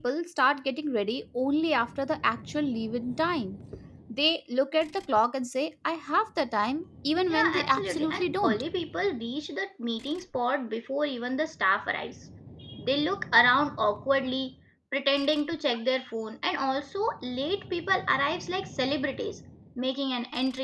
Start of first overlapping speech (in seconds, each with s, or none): 7.3 s